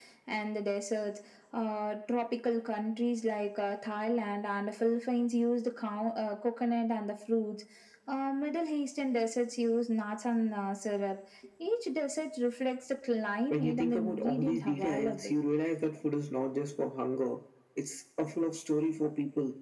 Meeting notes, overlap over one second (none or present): present